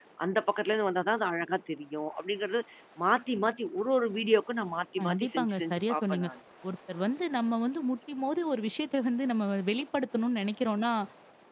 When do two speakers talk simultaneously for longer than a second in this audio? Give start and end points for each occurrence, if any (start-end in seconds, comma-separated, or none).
5.0-6.3